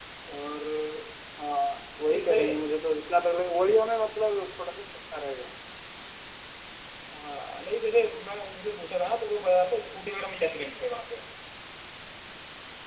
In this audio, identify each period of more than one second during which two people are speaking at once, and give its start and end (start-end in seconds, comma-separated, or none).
none